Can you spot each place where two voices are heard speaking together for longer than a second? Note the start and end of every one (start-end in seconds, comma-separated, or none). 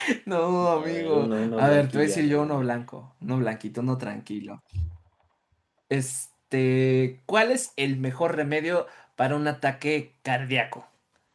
0.8-2.6